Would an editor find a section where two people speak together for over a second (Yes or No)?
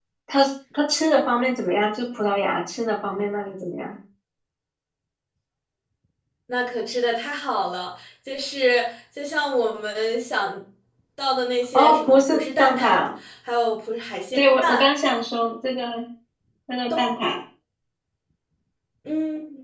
Yes